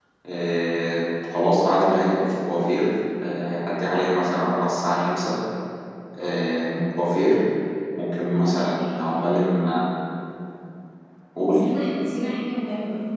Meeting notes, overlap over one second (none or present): none